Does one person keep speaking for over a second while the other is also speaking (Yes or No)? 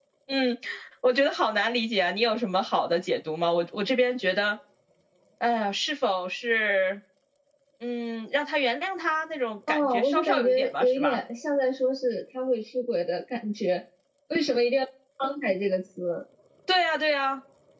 Yes